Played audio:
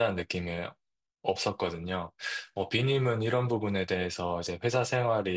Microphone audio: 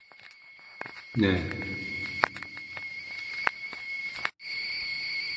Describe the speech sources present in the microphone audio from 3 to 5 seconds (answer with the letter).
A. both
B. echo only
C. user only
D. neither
D